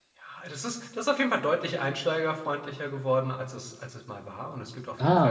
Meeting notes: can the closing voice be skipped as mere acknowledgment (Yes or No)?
Yes